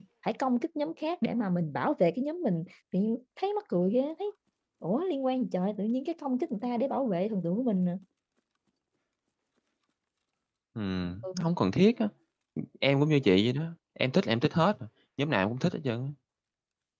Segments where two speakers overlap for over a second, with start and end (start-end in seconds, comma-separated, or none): none